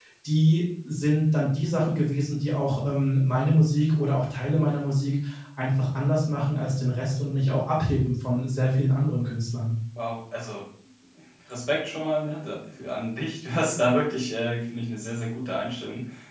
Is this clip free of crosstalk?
Yes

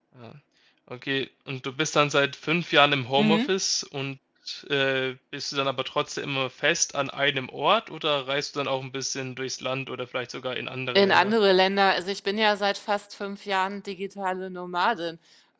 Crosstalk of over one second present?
No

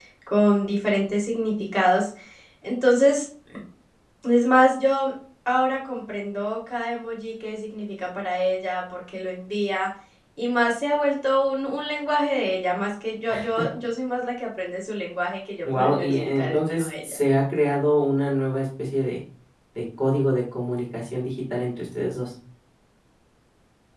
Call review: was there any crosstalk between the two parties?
Yes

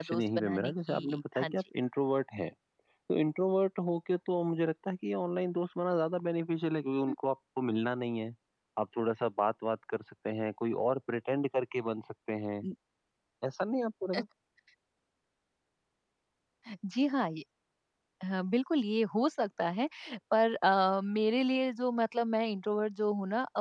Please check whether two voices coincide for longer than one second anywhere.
Yes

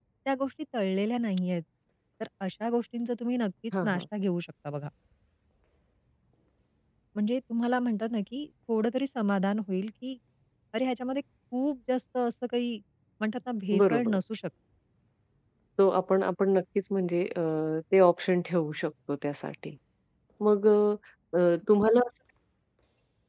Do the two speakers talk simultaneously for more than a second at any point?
No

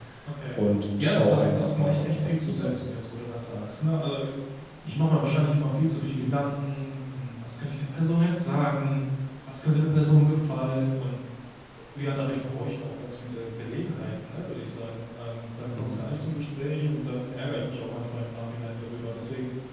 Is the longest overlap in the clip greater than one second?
Yes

